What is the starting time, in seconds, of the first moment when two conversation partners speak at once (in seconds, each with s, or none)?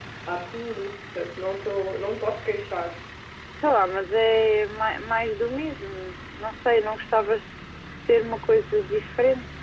none